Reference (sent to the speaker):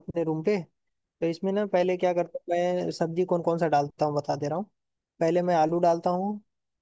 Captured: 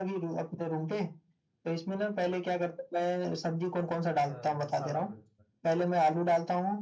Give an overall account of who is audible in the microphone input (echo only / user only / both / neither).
both